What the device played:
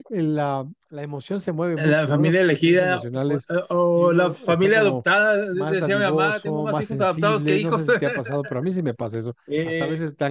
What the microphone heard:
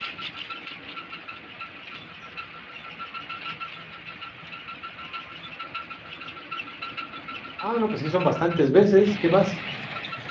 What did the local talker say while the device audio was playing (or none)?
Ah, no, pues sí, son bastantes veces. ¿Qué más?